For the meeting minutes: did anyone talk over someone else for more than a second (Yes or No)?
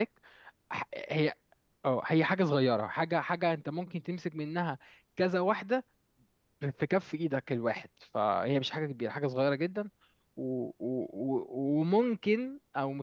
No